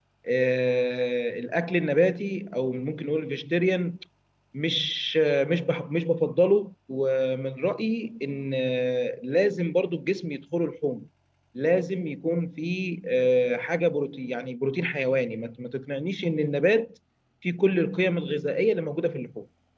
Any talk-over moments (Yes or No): No